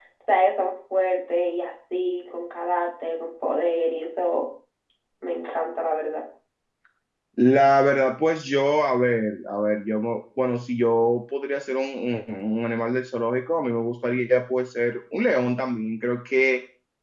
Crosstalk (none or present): none